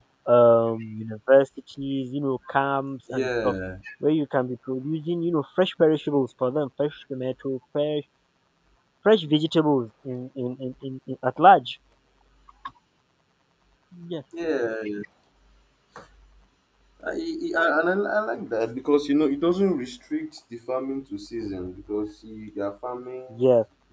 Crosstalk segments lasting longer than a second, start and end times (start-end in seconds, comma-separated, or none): none